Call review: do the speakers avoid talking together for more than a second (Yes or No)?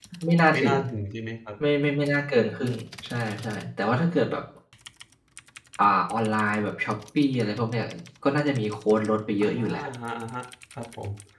Yes